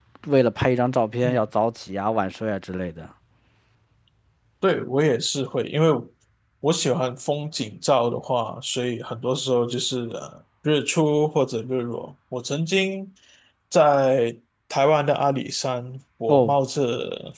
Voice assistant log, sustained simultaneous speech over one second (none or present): none